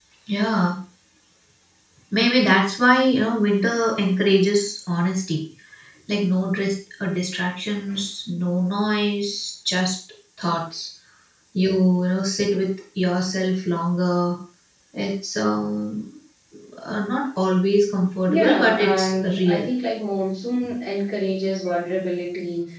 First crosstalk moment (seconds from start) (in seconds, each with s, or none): 18.3 s